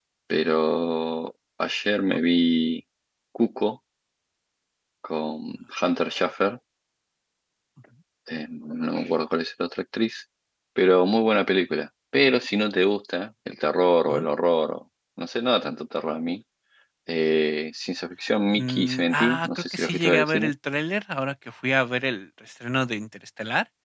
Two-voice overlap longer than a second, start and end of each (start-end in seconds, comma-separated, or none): 18.5-20.5